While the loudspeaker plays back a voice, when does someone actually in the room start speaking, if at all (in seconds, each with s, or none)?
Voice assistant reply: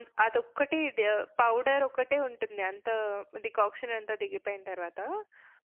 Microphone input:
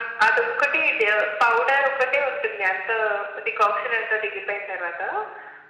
none